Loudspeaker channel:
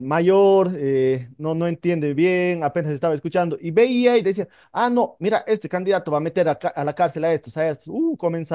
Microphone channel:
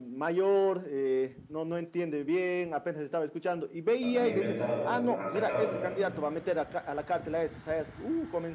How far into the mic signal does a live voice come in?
4.0 s

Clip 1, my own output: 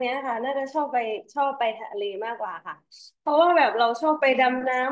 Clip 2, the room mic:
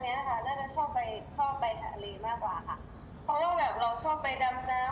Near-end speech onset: none

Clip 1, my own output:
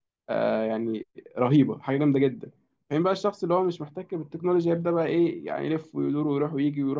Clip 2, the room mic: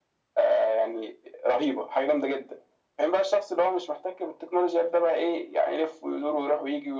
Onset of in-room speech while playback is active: none

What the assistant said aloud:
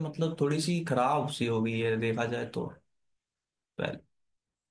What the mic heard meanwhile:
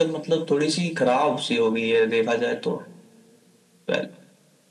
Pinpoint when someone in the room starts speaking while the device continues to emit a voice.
none

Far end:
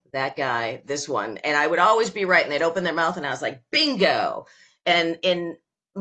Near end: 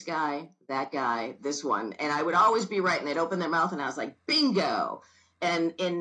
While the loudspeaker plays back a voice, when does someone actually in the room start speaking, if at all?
none

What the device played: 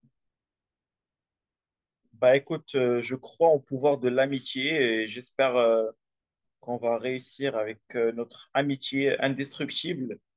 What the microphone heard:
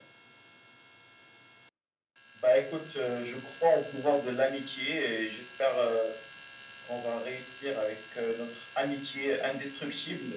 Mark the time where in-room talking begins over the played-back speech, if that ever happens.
none

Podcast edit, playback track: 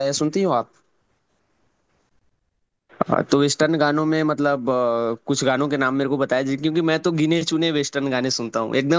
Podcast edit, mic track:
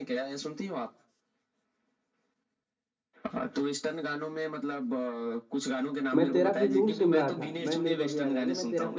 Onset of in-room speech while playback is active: 6.2 s

